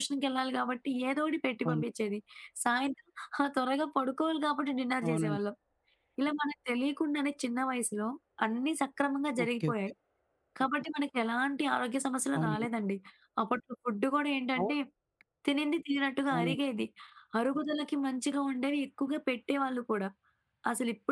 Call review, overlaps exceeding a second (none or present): none